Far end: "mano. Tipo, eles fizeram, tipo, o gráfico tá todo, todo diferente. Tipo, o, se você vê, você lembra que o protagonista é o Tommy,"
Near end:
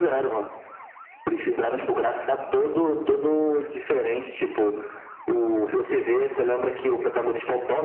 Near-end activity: none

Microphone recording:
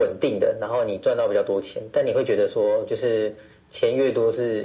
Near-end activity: none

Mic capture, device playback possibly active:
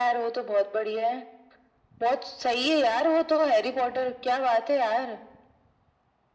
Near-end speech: none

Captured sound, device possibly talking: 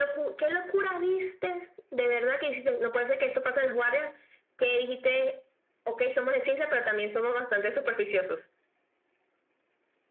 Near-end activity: none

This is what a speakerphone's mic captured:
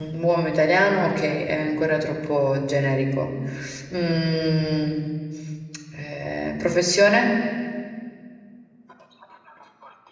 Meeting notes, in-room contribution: present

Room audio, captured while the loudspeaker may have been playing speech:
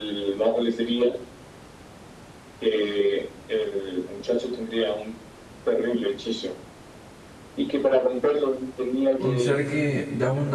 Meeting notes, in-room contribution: present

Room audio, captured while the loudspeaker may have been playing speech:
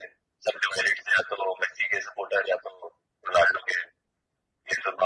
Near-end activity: none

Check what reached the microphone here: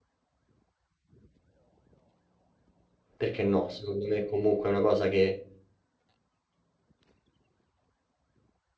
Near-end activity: present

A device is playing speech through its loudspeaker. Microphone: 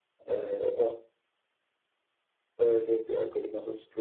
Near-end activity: present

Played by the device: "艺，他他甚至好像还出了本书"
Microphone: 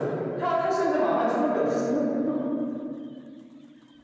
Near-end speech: none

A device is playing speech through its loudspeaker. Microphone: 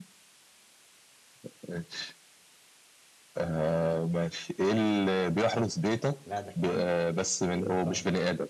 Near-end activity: present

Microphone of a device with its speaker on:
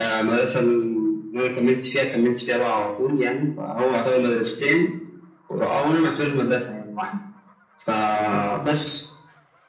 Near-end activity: none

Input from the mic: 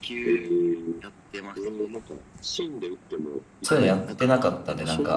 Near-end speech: present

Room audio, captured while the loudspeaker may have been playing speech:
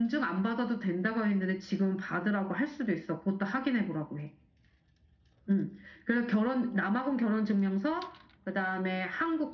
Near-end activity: present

